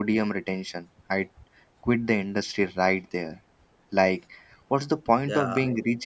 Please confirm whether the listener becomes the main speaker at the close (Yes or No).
No